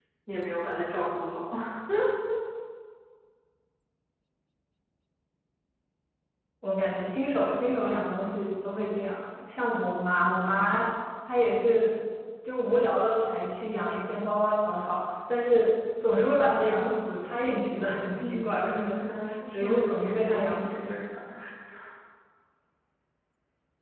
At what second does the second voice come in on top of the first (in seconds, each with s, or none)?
18.2 s